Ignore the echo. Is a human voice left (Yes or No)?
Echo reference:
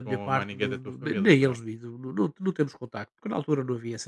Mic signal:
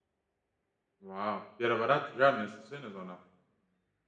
Yes